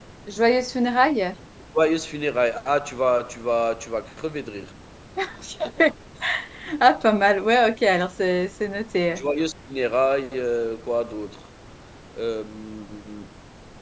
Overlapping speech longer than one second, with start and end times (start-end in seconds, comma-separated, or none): none